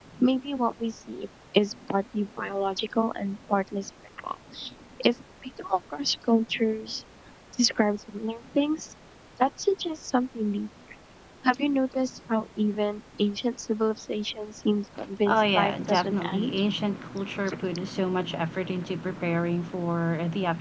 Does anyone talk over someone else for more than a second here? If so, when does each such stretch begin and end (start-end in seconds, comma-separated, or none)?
15.2-16.6